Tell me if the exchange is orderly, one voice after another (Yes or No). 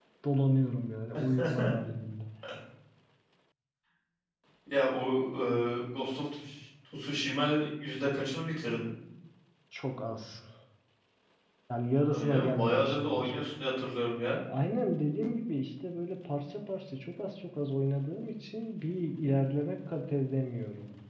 No